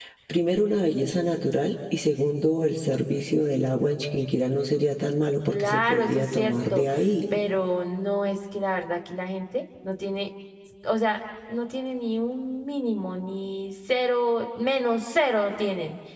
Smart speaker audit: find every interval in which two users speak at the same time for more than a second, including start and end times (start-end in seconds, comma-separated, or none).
5.5-6.8